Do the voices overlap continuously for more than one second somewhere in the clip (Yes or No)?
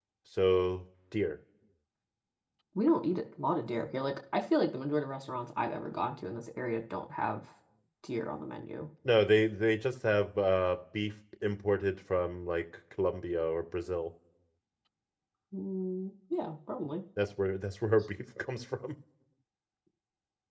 No